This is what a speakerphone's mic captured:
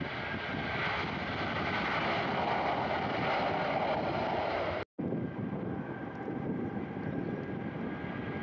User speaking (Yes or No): No